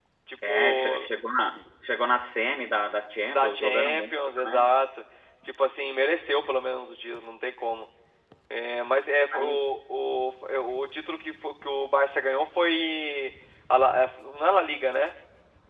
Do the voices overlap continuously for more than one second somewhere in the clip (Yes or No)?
Yes